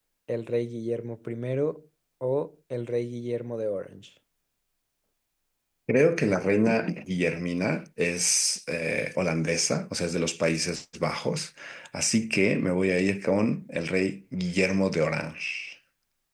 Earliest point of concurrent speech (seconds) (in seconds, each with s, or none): none